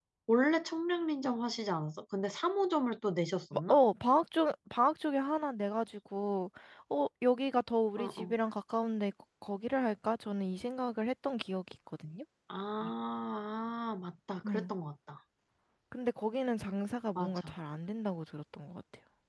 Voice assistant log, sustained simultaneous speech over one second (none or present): none